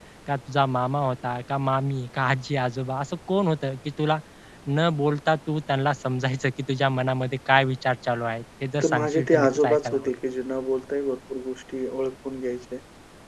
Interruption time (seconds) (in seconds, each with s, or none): 8.8 s